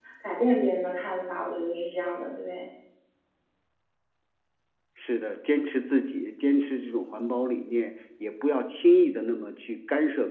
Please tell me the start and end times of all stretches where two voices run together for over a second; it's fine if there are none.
none

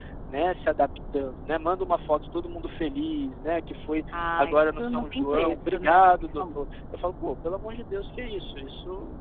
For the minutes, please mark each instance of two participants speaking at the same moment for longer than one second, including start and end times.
4.1-6.6

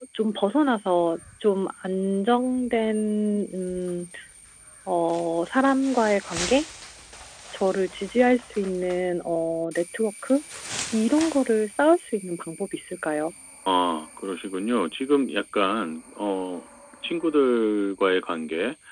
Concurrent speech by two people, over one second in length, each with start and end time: none

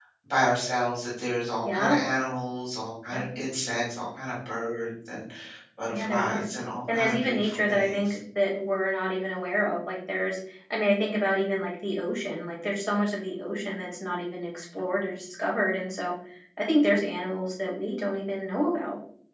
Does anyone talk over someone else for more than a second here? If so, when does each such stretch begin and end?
6.9-8.2

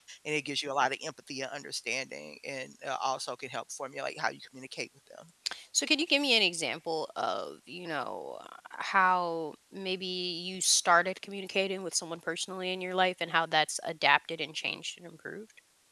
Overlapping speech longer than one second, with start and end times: none

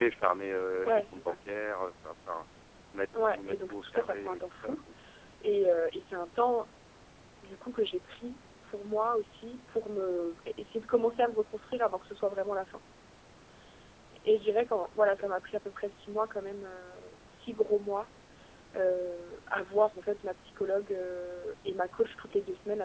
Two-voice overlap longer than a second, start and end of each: 3.2-4.8

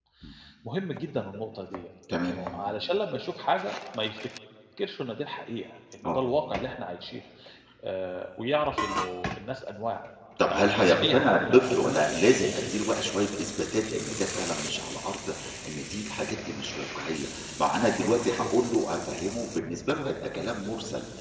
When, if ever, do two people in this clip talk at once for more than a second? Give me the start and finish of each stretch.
10.4-11.9

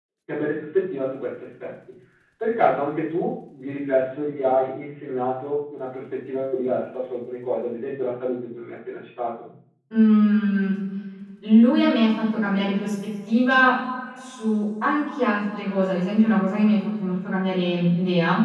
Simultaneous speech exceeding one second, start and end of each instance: none

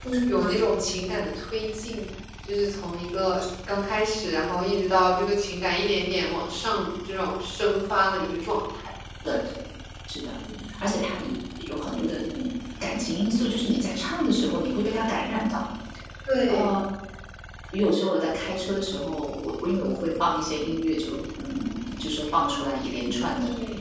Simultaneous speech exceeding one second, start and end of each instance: none

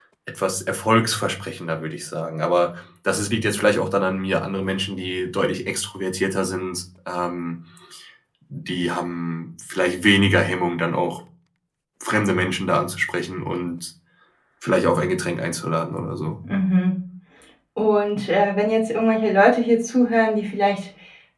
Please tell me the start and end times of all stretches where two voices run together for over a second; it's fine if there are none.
none

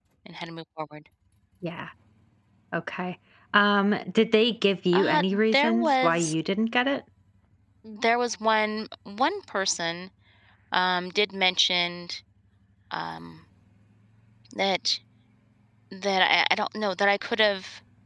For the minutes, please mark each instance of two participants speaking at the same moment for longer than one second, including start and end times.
4.9-6.3

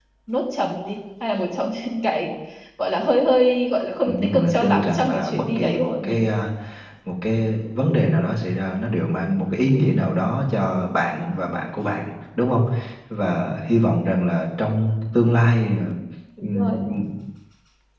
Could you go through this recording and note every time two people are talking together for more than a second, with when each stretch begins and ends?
4.0-6.2

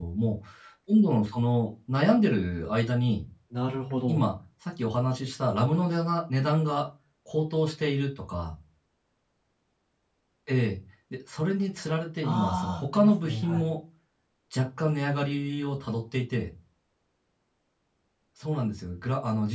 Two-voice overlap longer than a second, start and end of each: 12.2-13.7

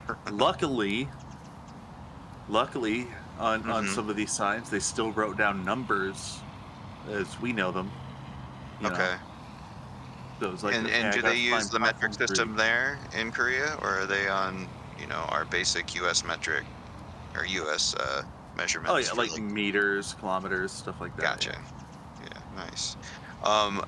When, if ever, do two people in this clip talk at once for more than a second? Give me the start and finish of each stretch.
10.7-12.5

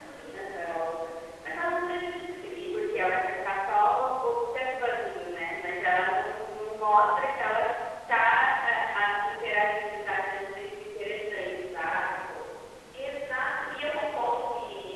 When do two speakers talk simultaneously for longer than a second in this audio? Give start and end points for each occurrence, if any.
none

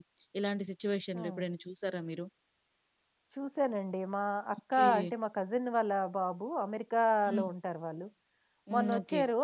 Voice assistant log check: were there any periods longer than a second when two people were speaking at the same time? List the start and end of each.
none

